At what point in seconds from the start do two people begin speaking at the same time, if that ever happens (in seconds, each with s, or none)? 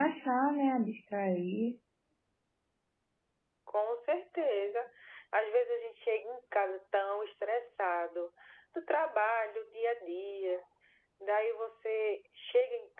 none